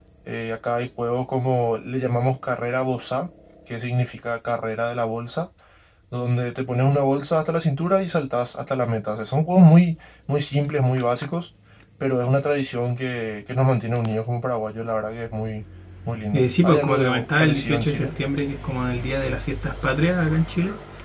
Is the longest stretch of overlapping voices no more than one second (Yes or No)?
No